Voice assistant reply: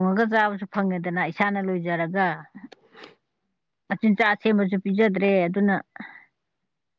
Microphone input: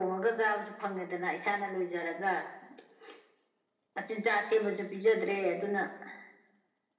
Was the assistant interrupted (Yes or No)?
No